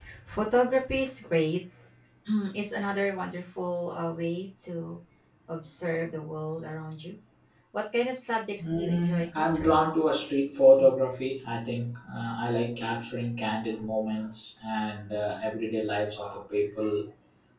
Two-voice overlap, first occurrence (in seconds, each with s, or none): 8.6 s